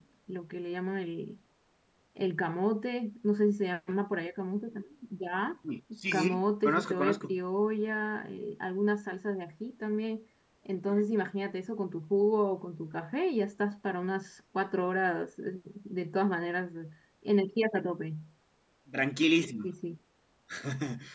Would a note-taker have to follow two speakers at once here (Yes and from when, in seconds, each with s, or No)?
Yes, from 6.1 s